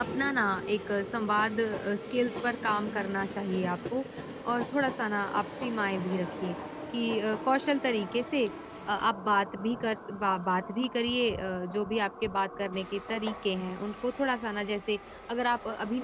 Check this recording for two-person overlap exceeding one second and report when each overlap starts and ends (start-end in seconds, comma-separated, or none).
none